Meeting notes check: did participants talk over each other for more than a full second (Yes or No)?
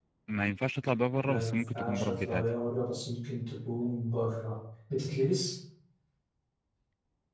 Yes